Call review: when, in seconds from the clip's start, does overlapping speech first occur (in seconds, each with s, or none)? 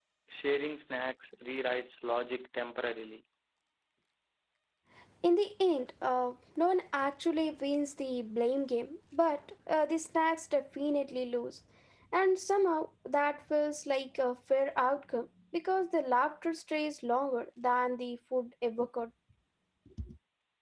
none